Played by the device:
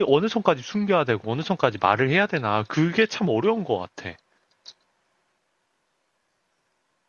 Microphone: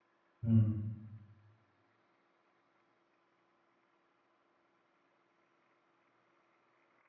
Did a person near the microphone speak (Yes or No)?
Yes